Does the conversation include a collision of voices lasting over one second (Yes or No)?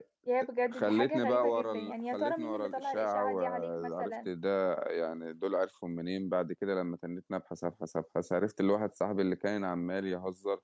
Yes